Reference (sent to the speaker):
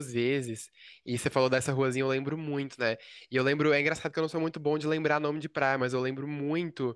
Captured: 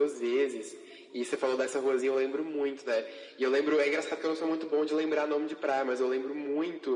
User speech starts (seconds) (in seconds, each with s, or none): none